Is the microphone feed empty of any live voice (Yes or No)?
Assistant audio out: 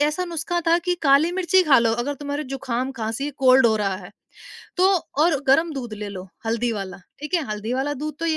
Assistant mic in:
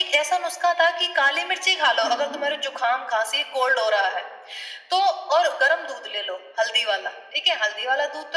No